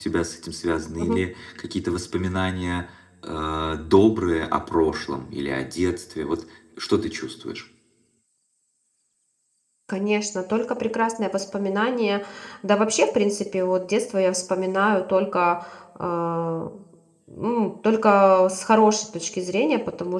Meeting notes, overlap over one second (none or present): none